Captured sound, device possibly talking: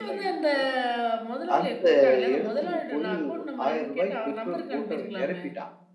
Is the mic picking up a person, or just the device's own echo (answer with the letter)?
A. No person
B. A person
B